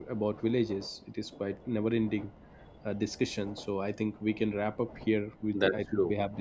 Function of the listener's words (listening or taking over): listening